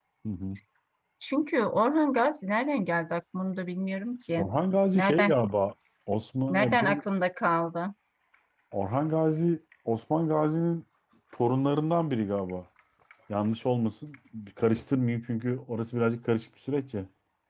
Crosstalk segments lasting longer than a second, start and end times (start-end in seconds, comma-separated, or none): none